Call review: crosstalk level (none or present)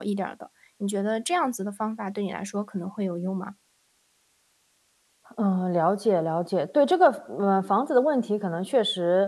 none